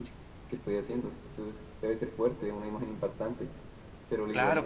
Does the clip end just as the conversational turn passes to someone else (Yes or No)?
Yes